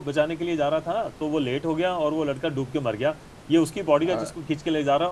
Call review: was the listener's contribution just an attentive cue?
Yes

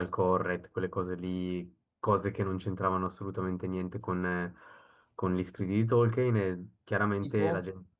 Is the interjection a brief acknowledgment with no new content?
Yes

